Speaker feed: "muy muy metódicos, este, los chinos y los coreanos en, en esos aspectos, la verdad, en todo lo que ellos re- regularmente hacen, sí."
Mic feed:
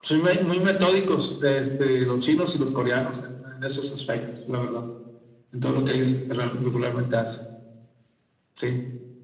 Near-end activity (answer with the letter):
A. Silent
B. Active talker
A